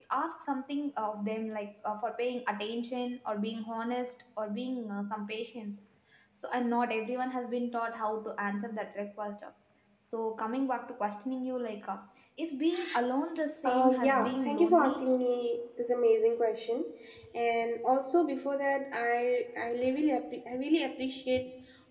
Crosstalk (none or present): present